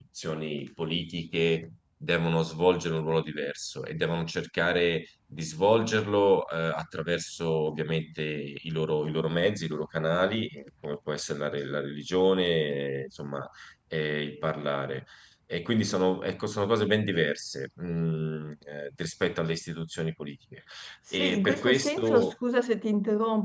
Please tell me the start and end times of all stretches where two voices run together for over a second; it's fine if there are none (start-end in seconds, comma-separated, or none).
21.1-22.3